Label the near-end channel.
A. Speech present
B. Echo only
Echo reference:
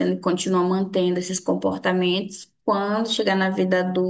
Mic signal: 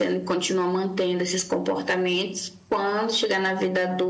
B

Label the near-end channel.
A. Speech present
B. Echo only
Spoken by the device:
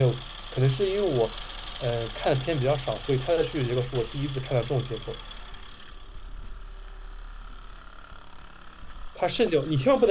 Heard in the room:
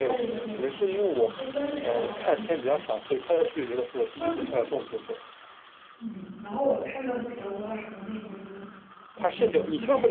A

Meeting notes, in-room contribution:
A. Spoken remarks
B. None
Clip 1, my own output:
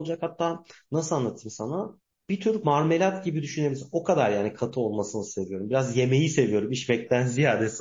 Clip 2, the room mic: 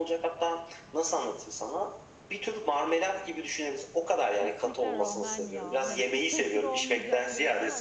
A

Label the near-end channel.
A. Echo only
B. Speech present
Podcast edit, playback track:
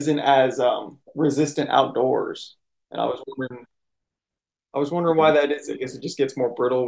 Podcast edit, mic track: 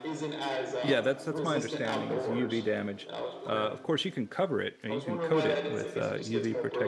B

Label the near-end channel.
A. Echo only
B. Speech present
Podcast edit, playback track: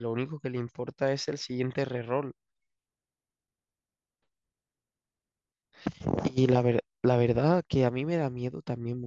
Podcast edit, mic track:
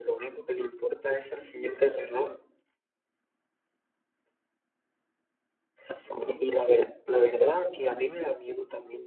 A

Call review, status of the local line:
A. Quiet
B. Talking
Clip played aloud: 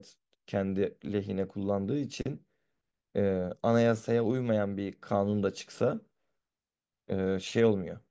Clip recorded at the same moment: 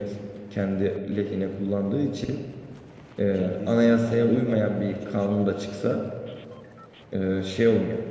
B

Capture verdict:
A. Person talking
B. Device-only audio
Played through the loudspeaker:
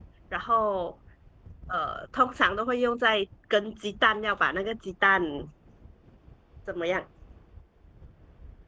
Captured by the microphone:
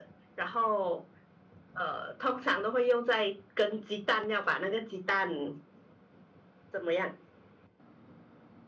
B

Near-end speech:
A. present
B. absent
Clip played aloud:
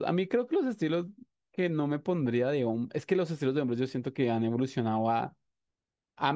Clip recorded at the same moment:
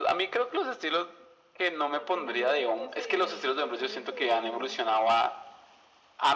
A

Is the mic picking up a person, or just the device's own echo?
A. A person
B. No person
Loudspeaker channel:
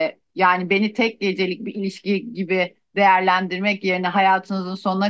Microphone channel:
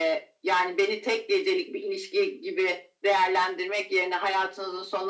B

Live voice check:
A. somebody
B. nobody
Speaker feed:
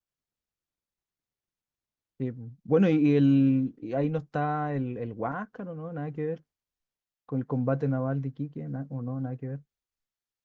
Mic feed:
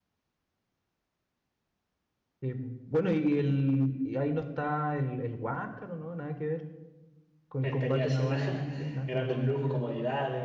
A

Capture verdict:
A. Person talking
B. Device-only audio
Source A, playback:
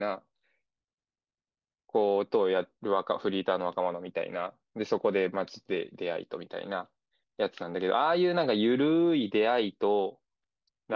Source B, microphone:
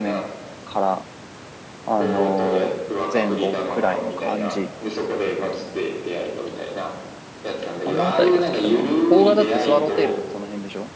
A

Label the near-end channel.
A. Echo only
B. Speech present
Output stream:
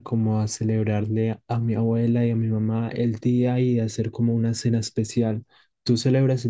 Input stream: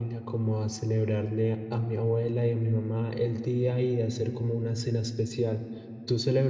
A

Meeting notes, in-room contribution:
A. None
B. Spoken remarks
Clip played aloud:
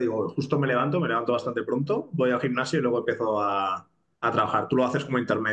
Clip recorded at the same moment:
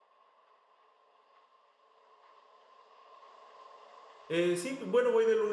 B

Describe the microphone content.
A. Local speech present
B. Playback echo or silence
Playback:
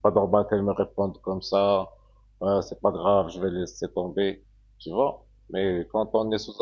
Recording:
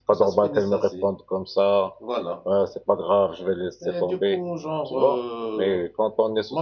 A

